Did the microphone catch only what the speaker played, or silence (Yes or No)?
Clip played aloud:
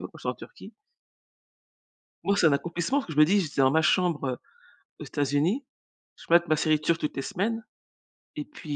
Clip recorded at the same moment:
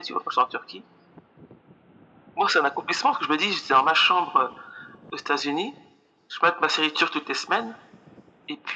Yes